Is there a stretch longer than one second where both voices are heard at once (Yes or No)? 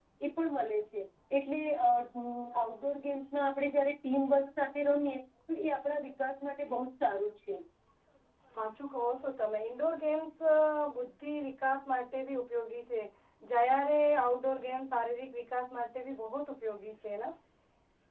No